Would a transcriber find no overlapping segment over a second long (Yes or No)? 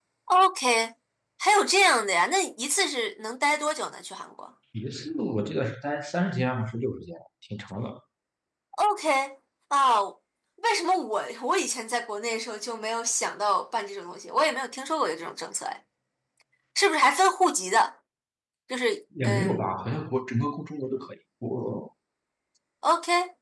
Yes